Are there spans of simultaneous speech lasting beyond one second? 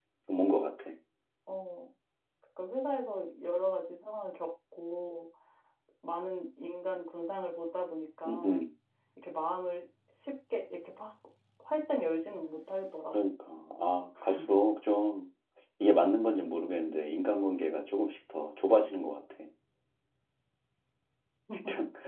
No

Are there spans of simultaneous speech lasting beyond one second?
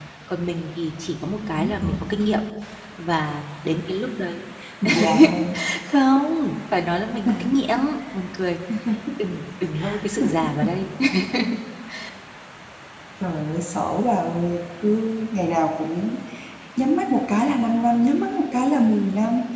No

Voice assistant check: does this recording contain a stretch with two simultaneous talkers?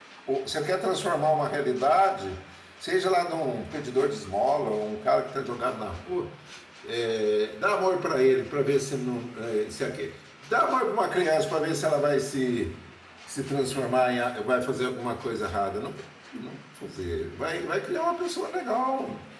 No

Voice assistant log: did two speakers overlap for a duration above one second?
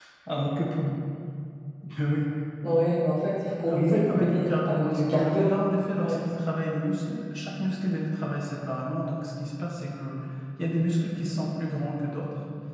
Yes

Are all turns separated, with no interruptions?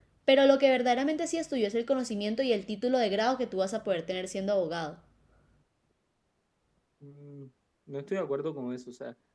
Yes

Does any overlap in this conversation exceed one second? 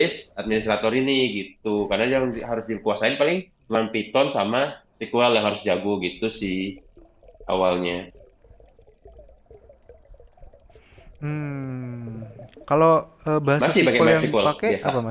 Yes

